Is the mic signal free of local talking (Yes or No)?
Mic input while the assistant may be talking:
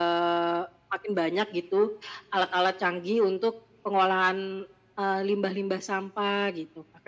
Yes